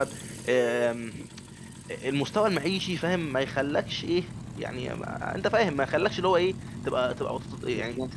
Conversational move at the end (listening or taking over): listening